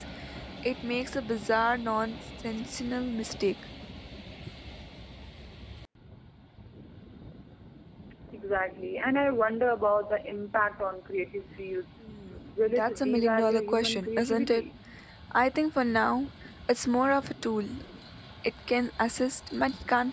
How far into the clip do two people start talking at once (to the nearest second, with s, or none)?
13 s